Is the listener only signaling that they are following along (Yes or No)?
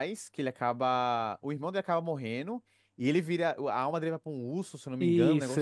No